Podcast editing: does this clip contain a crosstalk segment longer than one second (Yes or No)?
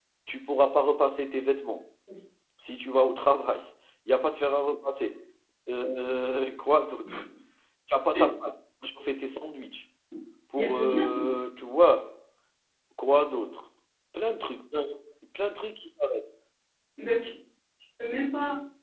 No